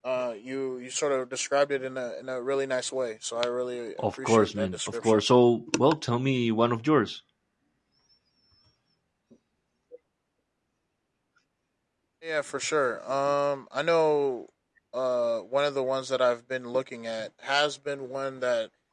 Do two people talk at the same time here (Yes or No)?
Yes